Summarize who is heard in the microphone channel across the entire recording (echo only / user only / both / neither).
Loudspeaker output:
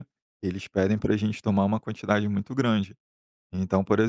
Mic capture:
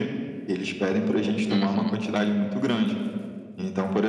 both